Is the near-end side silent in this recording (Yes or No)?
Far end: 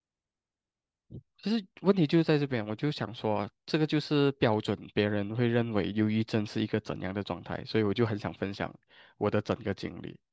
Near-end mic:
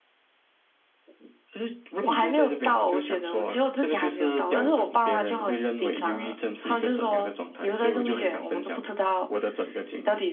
No